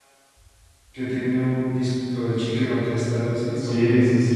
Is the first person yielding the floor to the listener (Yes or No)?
Yes